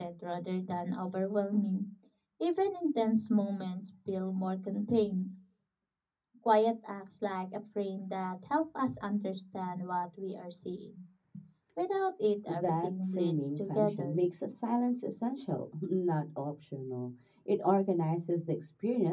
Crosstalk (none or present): present